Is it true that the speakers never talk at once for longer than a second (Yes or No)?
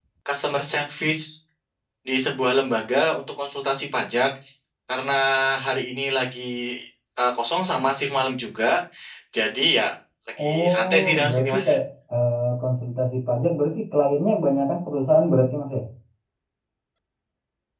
No